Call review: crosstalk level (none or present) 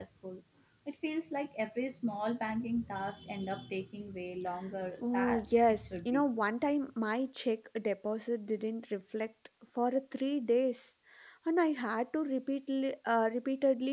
present